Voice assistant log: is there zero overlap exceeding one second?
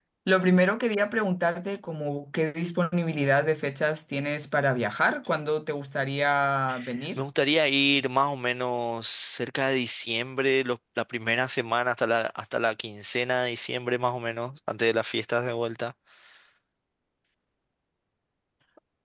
Yes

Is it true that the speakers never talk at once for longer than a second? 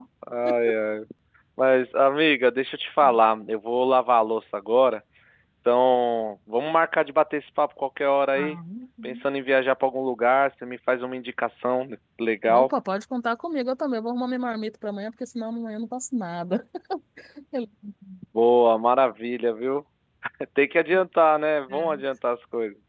Yes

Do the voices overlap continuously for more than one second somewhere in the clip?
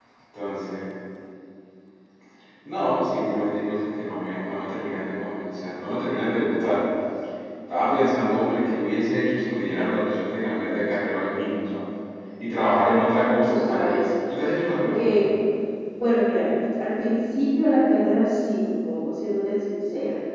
Yes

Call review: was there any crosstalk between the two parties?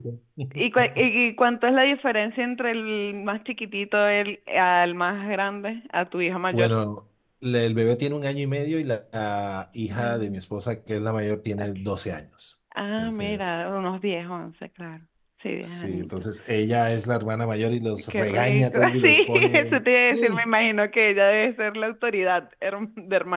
Yes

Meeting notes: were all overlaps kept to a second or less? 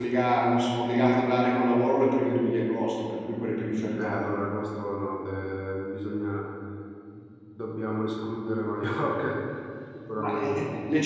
Yes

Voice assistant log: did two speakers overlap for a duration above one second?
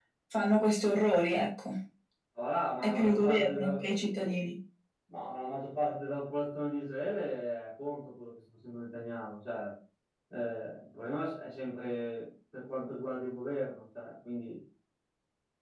Yes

